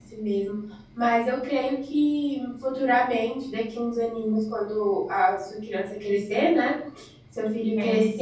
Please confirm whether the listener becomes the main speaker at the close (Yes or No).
No